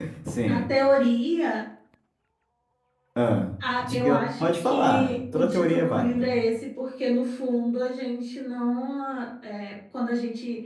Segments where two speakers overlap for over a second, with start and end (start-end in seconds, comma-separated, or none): 3.8-6.3